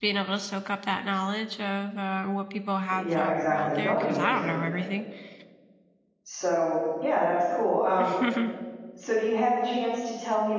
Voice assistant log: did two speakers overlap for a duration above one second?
Yes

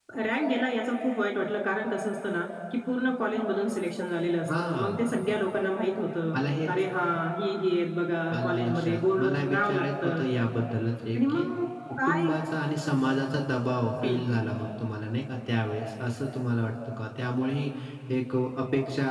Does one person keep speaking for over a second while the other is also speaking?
Yes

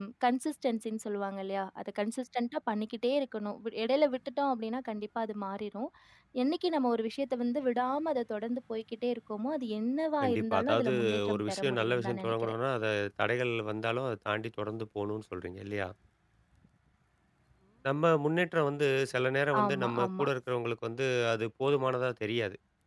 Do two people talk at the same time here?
Yes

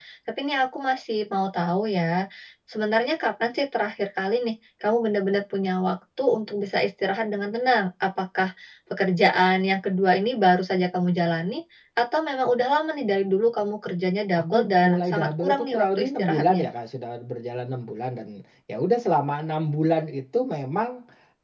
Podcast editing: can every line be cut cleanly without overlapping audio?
No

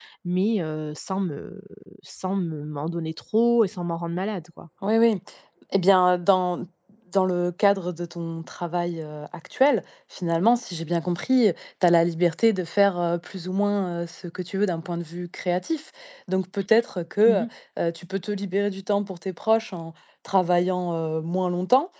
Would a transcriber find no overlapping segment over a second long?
Yes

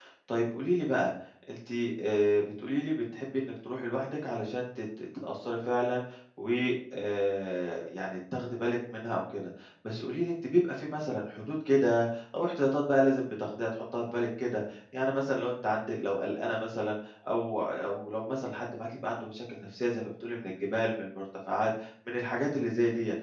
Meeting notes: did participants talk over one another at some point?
No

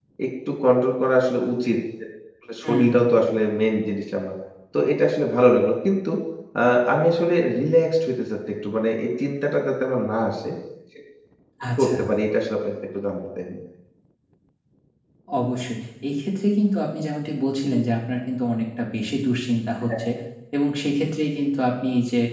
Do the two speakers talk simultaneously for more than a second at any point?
No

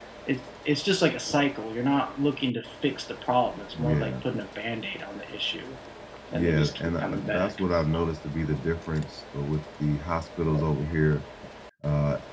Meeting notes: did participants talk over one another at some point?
Yes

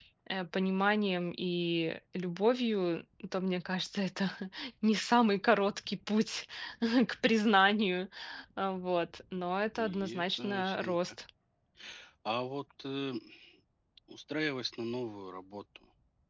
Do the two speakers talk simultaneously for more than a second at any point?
Yes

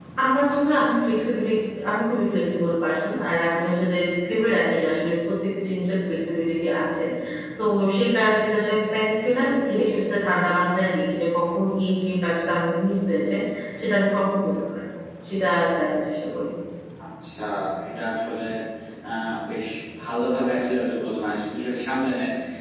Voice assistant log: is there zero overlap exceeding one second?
Yes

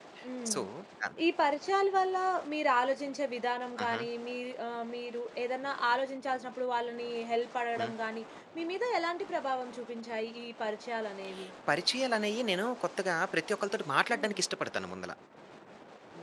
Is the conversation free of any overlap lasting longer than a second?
Yes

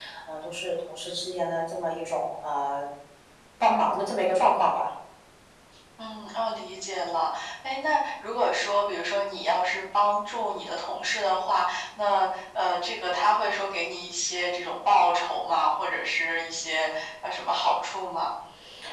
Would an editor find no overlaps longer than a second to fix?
Yes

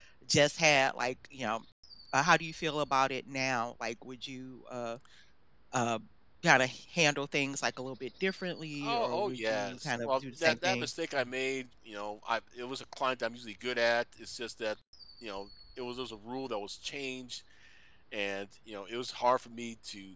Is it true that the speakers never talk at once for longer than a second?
No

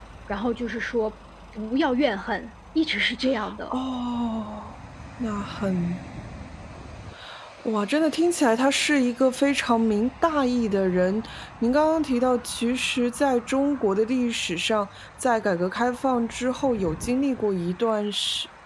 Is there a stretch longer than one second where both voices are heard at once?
No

